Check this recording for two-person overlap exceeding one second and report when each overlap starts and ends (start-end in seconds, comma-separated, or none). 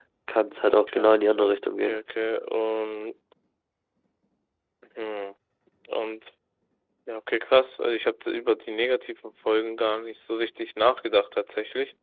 0.6-2.0